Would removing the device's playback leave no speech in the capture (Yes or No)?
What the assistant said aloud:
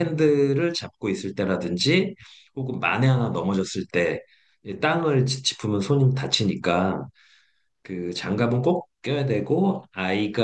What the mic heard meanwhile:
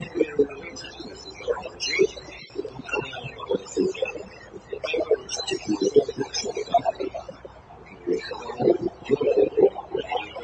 Yes